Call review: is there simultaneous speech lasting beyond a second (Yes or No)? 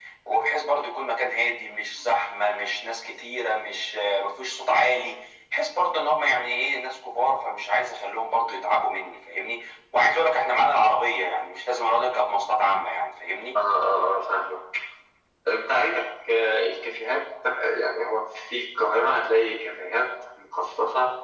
No